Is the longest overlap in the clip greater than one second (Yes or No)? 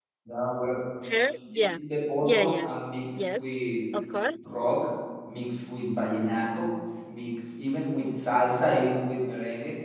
No